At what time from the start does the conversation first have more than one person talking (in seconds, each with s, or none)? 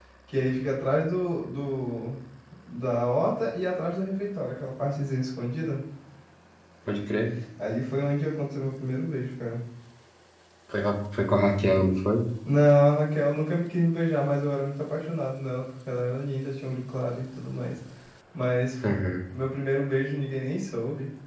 none